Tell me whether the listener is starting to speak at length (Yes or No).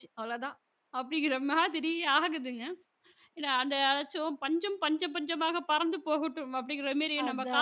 No